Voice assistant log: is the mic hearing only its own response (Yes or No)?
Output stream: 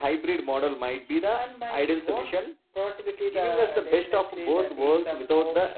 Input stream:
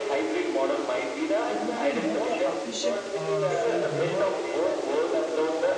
No